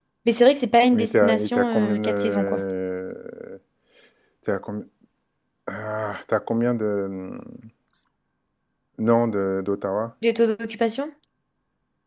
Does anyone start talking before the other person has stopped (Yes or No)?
Yes